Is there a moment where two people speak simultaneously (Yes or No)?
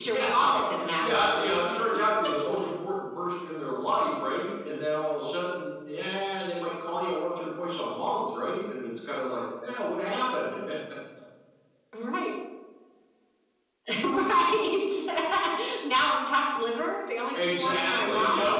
Yes